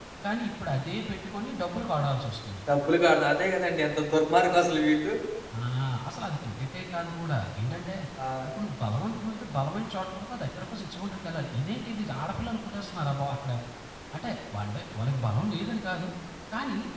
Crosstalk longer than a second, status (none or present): none